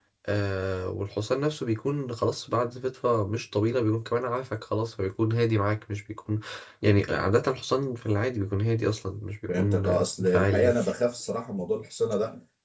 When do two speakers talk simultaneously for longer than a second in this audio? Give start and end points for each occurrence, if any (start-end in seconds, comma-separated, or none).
9.5-10.7